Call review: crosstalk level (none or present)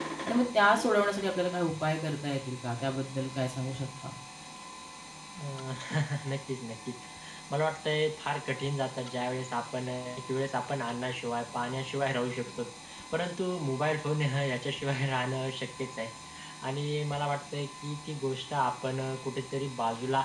none